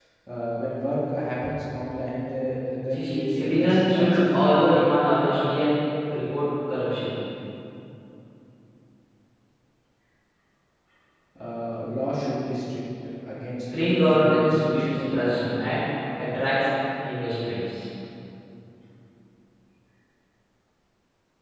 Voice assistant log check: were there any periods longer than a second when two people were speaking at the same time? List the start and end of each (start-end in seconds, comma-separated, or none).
2.9-4.8, 13.8-15.4